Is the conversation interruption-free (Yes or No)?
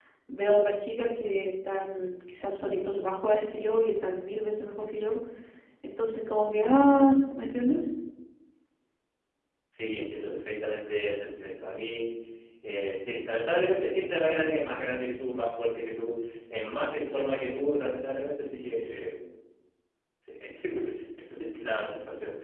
Yes